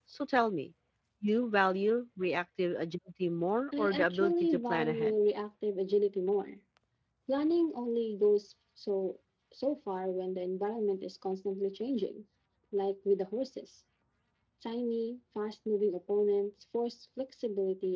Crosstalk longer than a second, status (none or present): present